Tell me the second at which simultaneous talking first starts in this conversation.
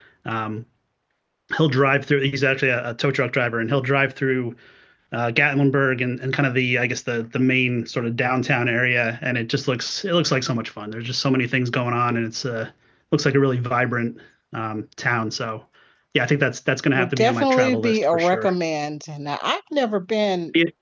16.9 s

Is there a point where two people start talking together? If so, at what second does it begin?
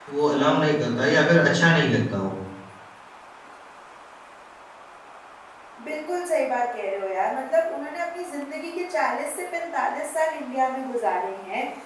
none

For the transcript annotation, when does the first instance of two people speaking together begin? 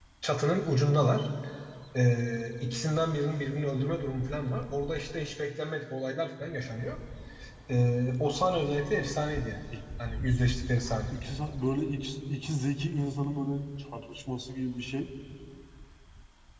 none

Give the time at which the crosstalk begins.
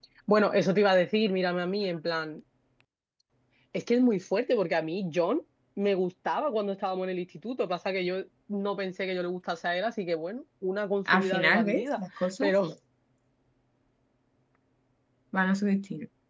11.1 s

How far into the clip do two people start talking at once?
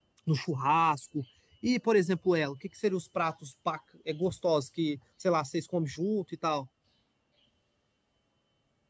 none

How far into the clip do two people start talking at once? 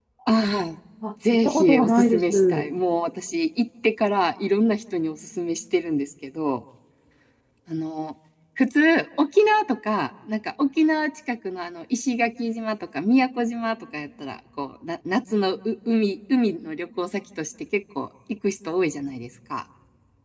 1.3 s

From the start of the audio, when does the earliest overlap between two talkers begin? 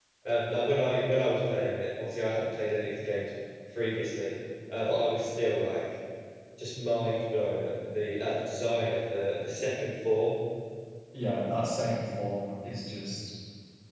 none

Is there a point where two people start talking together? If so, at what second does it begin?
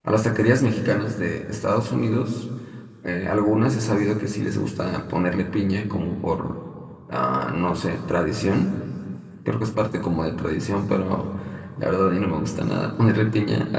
none

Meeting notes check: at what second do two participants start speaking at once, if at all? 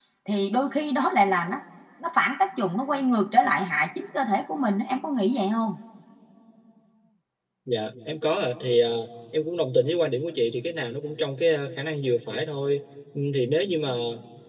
none

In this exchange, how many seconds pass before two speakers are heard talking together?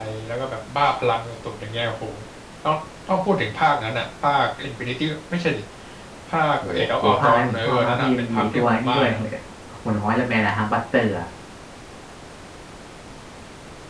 6.7 s

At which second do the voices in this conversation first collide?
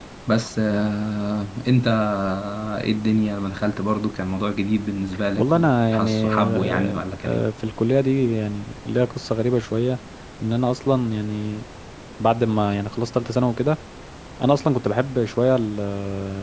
5.4 s

